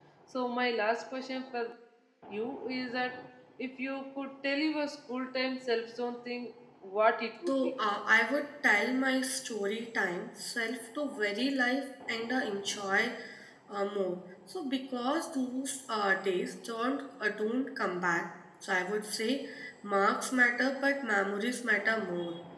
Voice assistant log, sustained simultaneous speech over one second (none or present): none